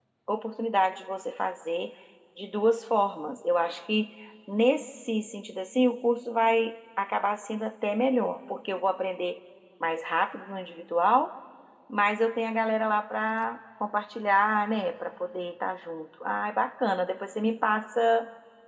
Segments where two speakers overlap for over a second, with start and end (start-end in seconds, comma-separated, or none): none